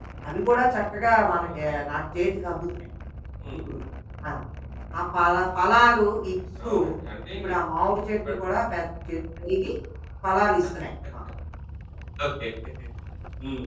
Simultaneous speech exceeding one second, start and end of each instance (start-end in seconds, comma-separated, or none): none